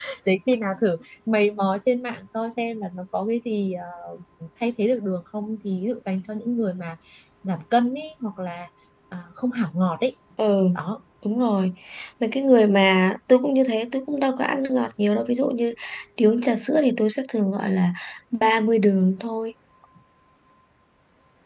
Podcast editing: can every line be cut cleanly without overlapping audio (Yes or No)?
Yes